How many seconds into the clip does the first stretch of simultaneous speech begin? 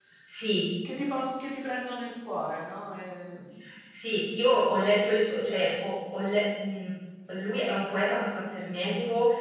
none

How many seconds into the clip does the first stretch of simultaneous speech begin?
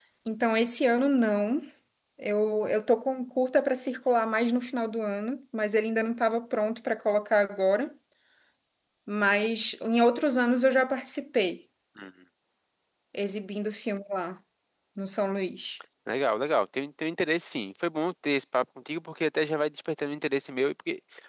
none

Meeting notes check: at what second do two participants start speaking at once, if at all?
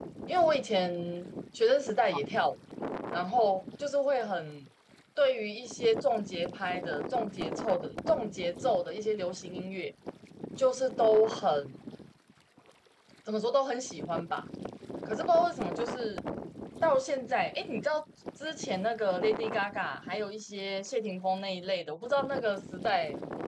none

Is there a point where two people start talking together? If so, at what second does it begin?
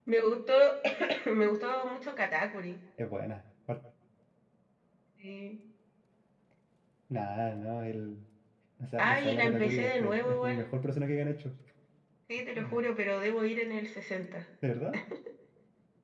9 s

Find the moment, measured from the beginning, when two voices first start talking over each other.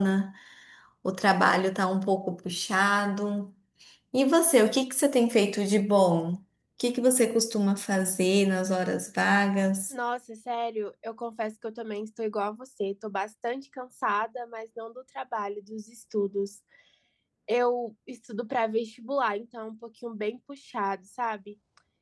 none

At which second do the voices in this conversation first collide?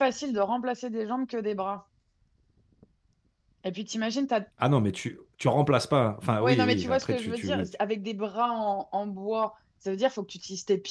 6 s

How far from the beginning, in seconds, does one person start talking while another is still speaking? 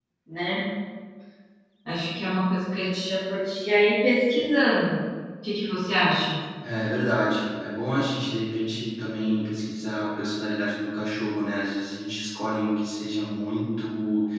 none

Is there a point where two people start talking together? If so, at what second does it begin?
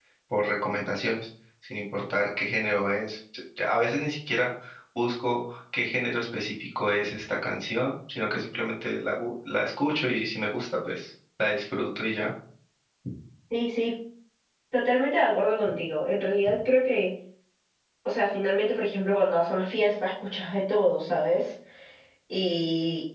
none

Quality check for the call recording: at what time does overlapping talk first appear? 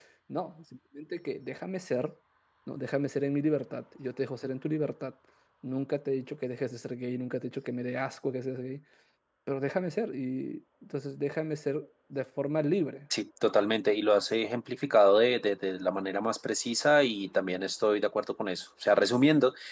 none

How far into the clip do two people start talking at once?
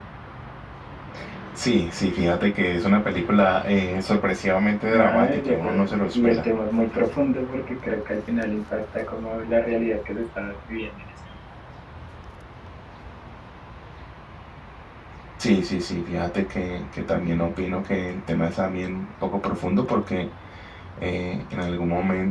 5 s

